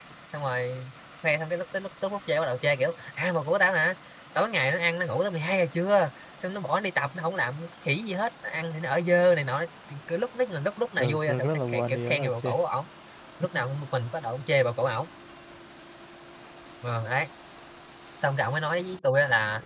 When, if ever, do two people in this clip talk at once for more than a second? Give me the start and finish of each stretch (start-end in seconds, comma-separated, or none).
11.0-12.5